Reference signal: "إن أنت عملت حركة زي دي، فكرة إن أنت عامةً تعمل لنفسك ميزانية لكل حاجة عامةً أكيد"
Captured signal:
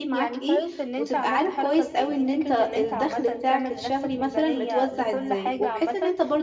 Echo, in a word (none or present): present